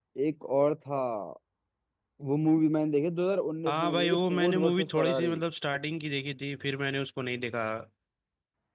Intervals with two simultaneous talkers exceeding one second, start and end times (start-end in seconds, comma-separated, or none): 3.7-5.3